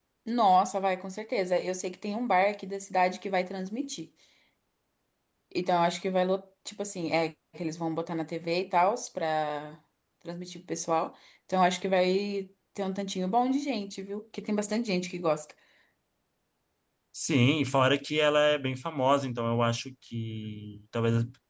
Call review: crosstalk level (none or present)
none